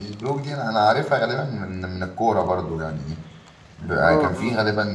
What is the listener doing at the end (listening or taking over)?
listening